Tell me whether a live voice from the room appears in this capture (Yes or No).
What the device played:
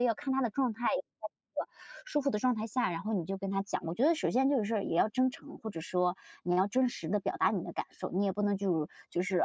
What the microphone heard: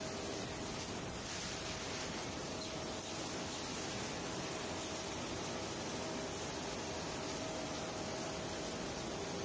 No